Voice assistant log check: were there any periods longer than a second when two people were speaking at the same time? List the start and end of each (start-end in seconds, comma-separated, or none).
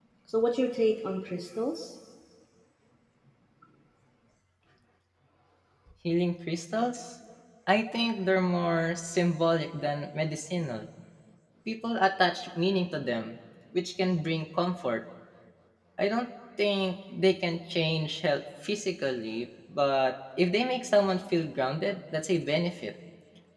none